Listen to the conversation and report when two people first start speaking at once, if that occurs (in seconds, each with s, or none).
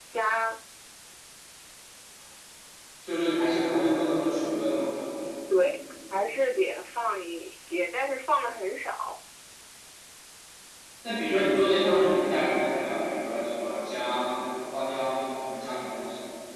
none